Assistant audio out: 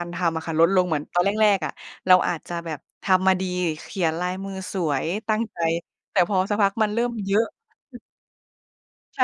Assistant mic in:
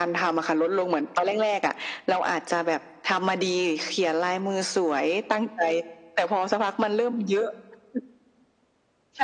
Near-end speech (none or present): none